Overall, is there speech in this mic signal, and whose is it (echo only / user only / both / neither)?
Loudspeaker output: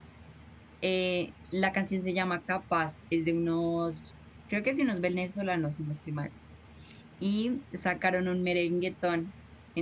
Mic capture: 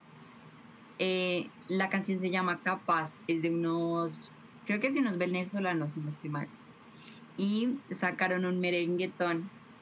echo only